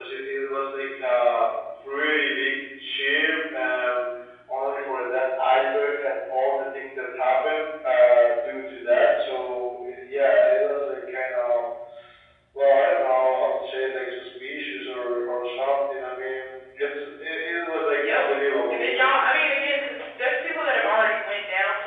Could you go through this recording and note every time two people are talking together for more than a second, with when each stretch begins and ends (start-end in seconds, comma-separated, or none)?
none